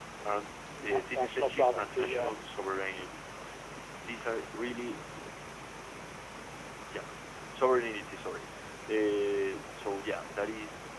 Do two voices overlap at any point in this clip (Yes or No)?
Yes